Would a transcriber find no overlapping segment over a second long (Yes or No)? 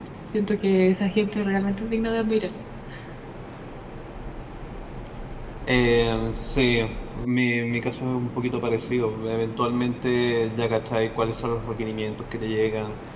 Yes